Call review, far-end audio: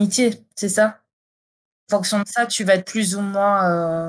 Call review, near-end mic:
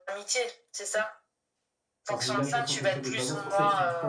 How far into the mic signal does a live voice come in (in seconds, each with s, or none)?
2.1 s